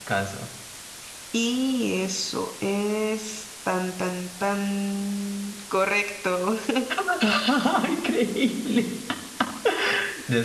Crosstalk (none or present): none